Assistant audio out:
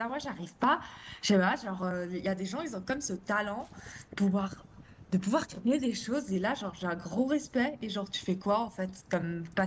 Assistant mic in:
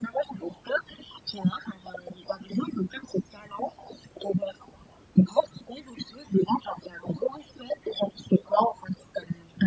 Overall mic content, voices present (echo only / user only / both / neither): echo only